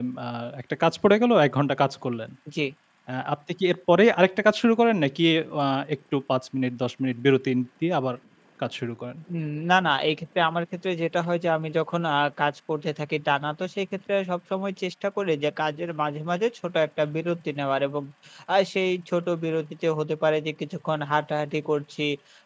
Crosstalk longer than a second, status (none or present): none